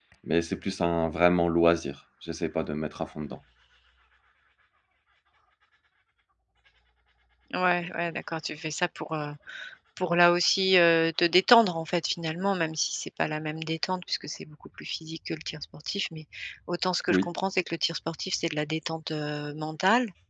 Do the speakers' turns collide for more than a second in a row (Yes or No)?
No